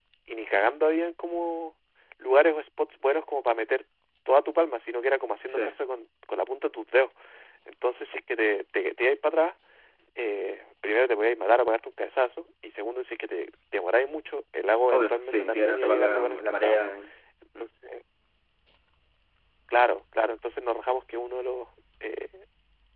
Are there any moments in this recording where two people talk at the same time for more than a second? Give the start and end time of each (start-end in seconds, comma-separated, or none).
14.9-16.8